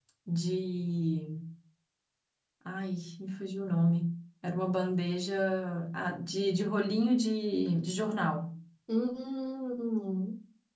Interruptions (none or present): none